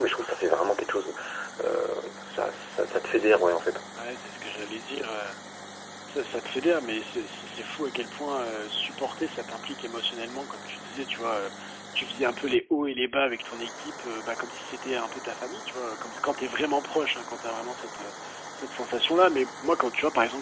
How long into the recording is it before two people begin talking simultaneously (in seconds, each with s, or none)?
none